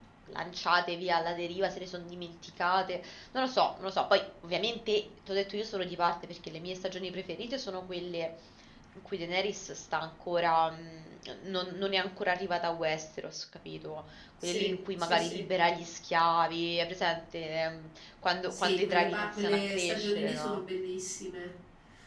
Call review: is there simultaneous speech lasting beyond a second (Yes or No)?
Yes